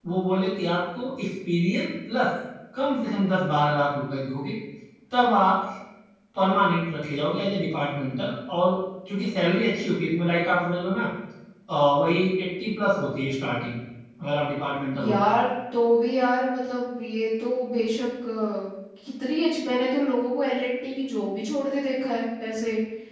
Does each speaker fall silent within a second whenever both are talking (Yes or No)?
Yes